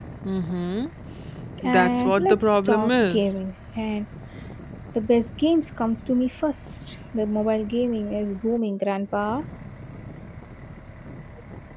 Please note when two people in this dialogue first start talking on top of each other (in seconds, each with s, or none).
1.7 s